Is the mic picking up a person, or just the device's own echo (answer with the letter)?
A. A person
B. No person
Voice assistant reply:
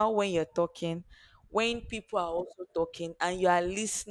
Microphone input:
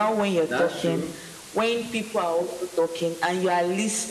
A